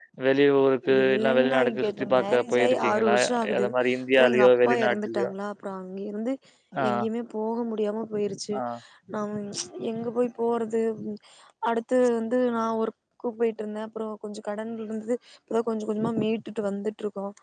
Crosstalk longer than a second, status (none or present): present